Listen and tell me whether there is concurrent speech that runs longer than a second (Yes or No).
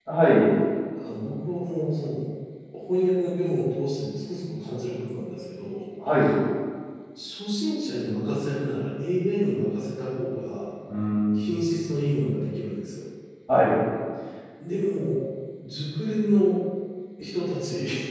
No